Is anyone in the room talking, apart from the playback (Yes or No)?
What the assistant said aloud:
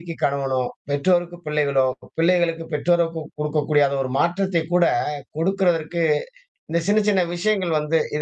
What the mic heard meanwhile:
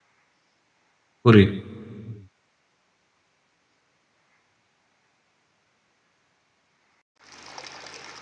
Yes